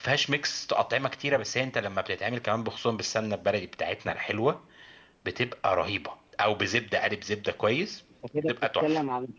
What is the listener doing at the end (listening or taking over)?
taking over